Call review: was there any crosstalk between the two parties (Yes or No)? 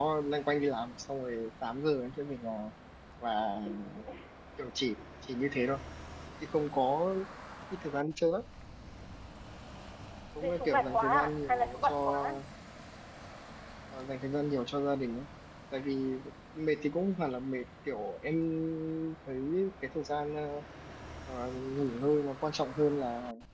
Yes